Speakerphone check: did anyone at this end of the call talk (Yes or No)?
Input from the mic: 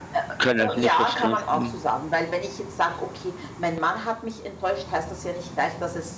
Yes